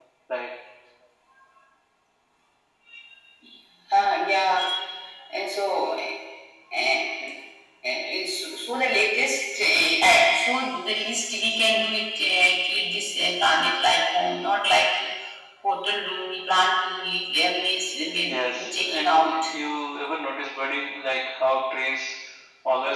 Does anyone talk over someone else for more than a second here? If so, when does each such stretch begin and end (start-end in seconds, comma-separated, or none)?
18.2-19.5